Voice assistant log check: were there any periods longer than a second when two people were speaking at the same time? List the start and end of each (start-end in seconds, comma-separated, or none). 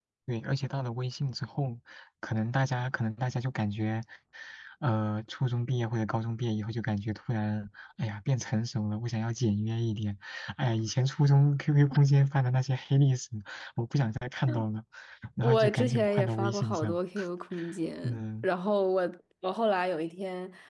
15.4-17.0